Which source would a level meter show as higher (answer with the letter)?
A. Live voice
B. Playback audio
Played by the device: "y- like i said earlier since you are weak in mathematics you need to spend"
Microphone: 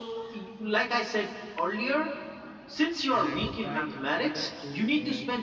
B